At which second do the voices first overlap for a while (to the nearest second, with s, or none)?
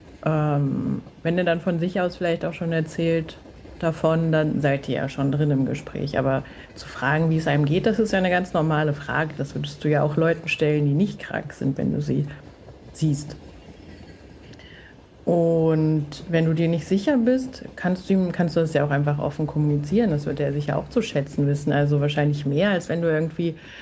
none